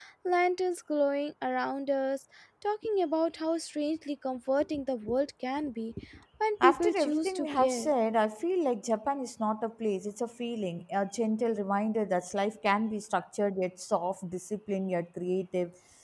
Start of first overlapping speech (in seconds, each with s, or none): 6.6 s